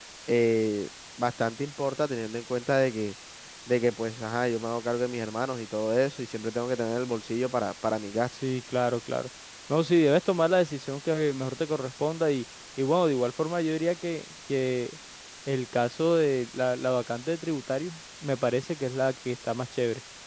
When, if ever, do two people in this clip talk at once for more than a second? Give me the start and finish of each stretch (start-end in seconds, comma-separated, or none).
none